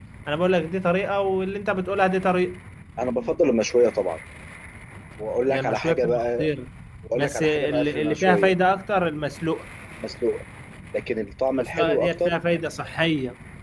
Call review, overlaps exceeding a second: present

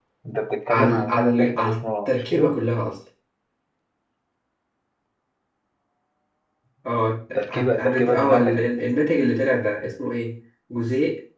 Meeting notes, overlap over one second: present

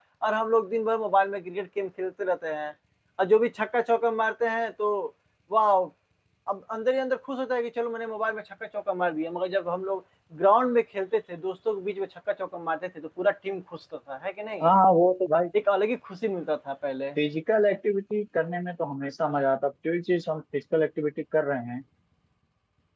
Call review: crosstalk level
none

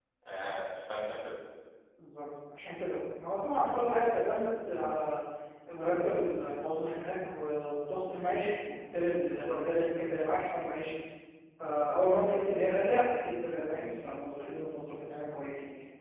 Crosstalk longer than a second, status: none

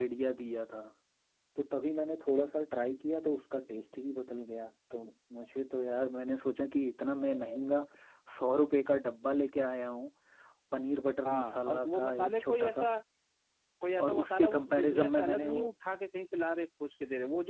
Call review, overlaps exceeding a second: present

